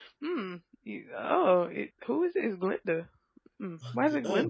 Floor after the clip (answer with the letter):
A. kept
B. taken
B